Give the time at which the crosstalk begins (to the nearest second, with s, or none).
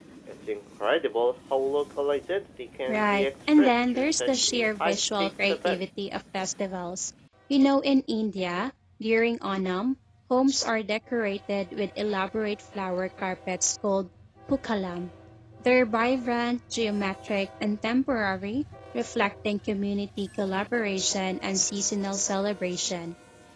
3 s